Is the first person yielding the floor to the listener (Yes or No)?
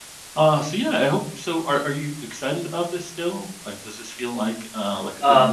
Yes